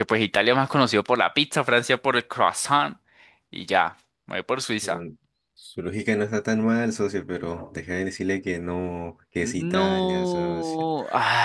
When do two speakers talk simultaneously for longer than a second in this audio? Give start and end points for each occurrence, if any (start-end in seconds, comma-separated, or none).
9.4-10.7